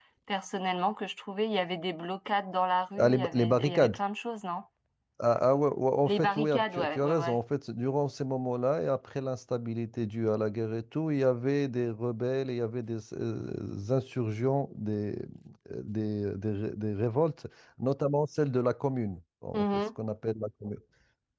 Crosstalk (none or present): present